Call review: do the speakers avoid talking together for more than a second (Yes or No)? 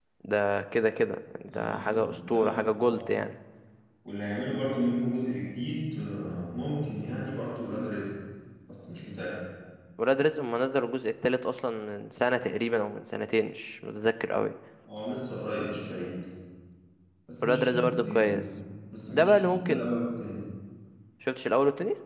No